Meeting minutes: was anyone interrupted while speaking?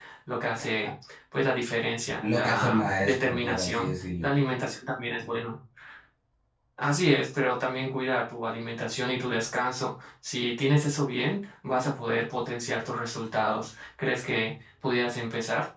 Yes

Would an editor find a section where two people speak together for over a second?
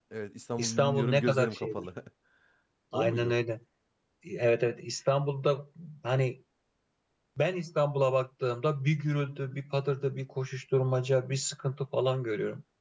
Yes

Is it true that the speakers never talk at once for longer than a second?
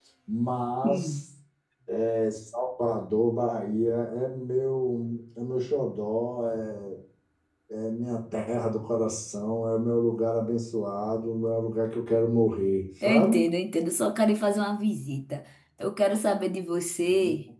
Yes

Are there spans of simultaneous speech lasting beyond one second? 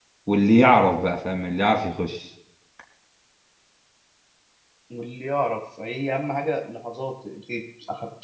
No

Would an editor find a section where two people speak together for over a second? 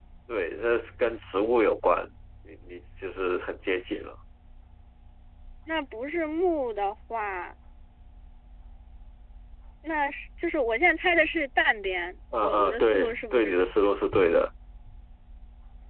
Yes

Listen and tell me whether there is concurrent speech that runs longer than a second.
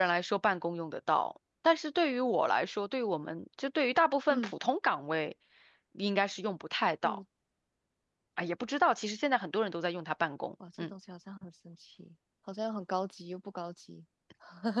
No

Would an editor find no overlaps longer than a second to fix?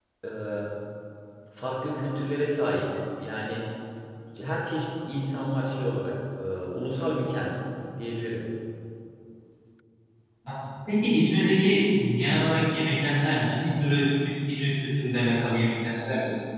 Yes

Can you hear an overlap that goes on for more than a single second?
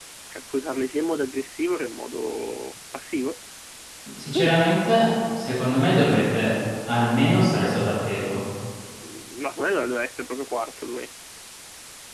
No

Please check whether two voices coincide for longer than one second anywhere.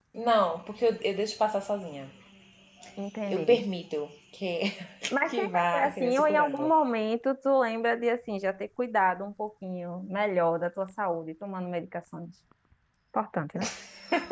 Yes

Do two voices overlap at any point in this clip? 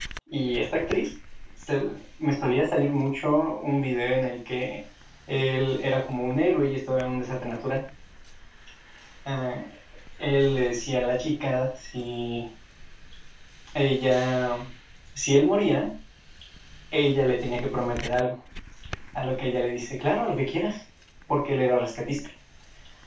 No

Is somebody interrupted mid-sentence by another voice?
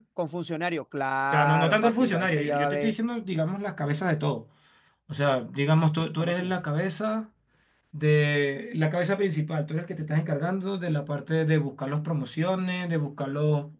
Yes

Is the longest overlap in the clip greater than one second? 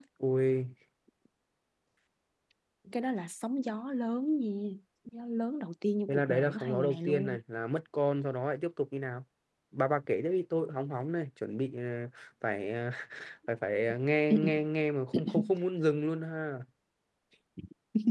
Yes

